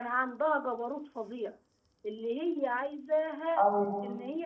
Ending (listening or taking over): listening